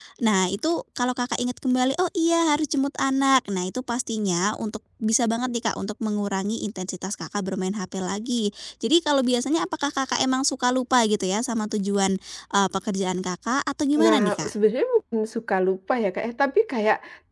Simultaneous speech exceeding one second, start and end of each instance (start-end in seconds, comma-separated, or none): none